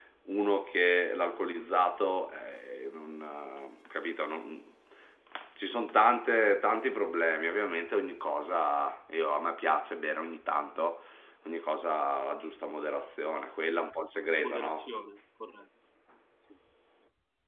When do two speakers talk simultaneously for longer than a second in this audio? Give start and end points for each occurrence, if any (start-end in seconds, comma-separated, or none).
none